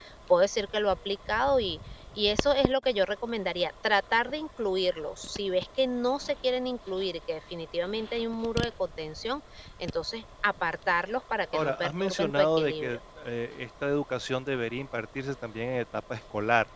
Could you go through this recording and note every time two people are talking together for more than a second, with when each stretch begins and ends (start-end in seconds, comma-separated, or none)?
11.5-13.0